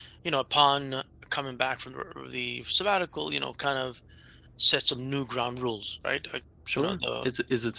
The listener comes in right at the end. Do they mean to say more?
Yes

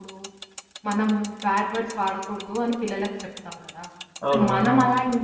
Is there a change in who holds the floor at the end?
No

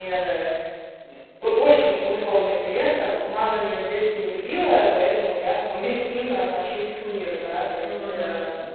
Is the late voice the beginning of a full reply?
No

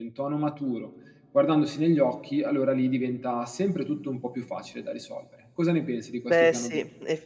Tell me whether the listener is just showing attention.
No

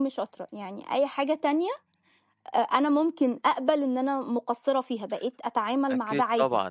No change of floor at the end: No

